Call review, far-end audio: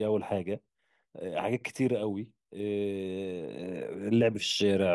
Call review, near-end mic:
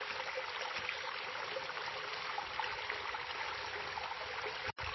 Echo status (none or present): none